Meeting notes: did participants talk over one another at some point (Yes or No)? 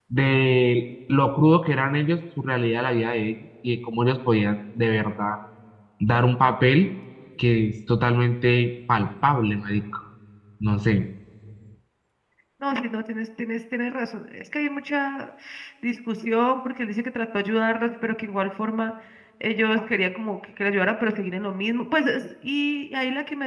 No